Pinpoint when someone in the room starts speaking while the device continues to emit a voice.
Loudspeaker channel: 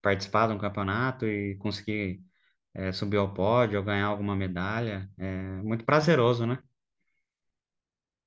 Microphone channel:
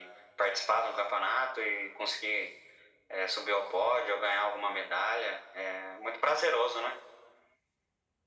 none

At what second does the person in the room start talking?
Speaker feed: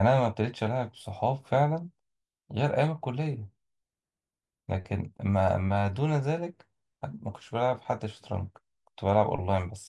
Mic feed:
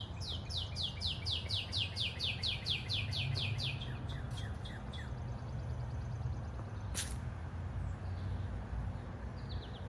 none

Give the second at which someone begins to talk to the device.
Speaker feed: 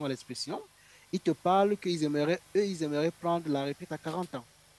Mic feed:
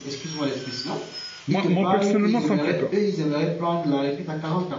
1.5 s

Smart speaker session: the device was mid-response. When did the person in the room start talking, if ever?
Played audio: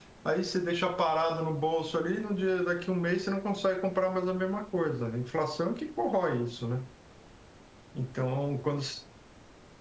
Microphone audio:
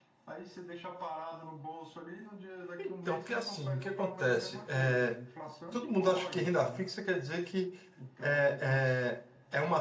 2.8 s

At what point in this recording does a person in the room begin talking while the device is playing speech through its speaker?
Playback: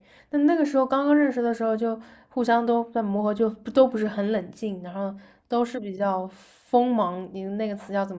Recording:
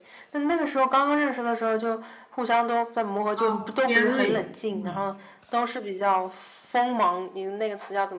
3.3 s

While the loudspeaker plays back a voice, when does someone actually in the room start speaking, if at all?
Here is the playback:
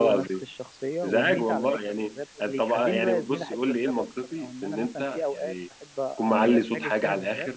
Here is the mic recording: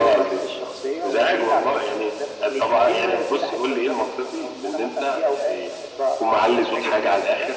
none

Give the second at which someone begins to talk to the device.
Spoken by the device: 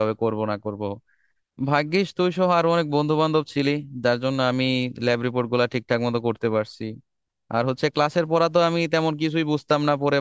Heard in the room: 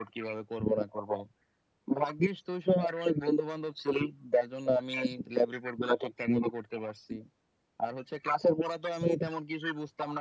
none

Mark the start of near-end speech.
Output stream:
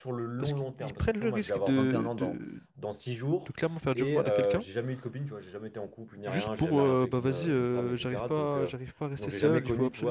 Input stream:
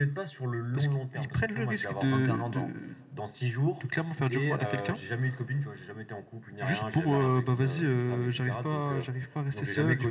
none

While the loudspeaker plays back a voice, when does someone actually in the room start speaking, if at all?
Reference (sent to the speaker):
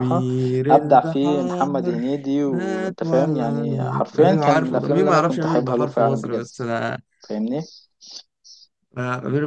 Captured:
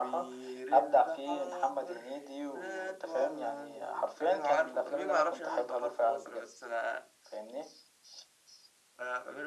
none

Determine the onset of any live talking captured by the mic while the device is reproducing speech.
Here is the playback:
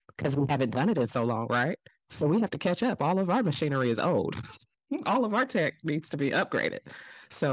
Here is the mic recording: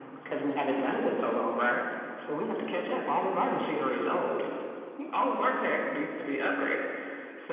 none

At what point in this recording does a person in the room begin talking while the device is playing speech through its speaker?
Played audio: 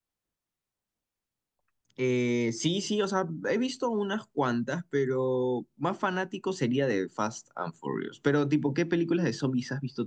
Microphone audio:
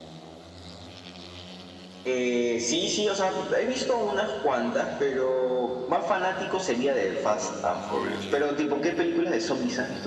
none

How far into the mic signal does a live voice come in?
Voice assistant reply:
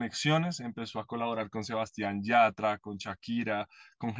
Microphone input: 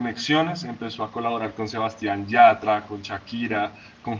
none

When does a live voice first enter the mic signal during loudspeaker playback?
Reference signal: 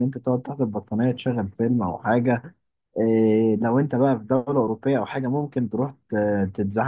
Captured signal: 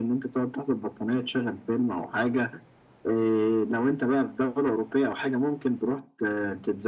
none

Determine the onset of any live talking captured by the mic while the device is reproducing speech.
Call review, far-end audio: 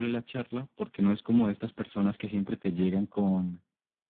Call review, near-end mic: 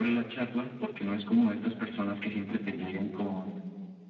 none

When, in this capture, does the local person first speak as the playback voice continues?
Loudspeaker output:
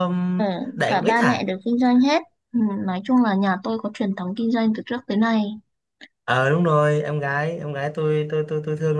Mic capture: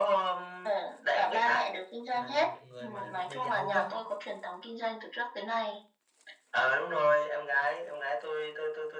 2.1 s

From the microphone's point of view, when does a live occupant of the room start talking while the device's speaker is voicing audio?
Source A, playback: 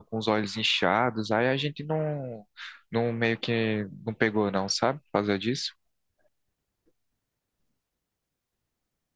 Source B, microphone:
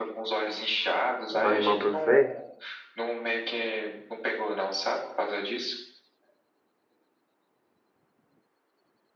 1.3 s

